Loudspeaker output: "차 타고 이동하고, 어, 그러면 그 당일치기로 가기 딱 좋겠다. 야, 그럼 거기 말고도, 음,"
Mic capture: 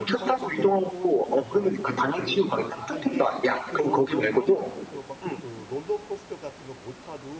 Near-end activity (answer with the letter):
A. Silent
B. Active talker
B